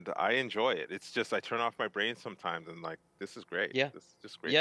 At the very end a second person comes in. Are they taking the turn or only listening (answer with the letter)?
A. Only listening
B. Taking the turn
B